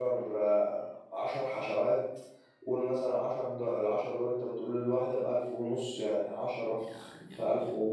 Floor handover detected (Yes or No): No